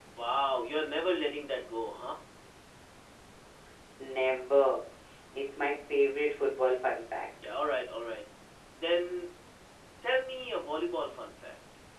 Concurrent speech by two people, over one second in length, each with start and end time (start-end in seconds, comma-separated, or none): none